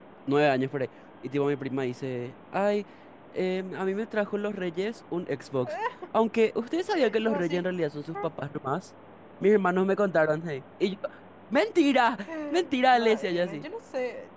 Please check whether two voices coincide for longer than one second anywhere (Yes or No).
Yes